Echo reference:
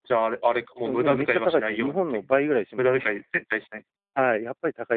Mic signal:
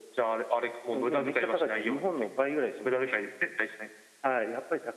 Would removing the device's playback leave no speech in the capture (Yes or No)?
Yes